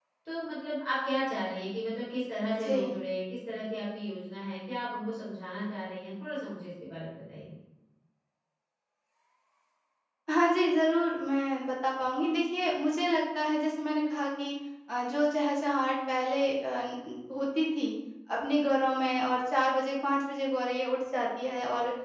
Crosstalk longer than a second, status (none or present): none